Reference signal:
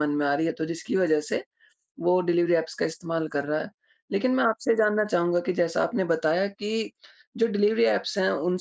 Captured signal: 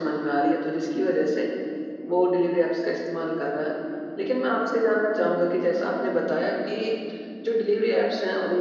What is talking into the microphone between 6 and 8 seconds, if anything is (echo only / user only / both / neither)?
echo only